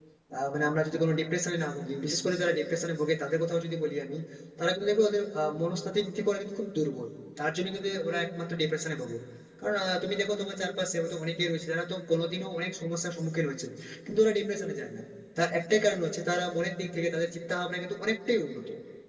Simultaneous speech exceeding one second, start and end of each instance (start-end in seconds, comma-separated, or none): none